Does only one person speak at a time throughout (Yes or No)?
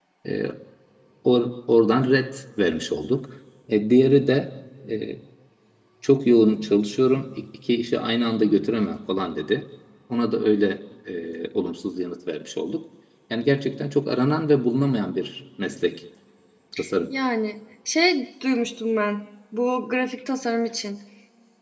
Yes